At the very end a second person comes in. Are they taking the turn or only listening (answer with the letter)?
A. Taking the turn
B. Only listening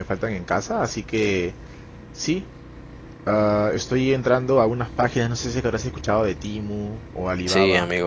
A